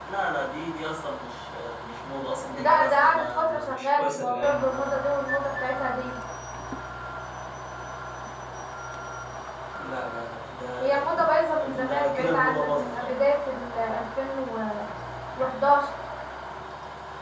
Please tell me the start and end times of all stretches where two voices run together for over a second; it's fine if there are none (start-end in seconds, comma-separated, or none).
2.5-4.9, 11.6-13.1